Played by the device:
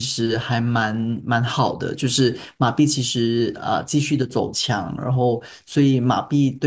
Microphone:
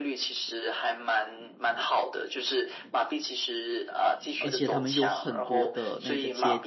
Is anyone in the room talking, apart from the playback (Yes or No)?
Yes